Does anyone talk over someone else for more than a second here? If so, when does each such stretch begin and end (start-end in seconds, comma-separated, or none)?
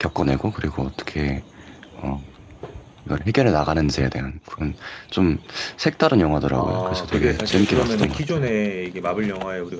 6.6-8.5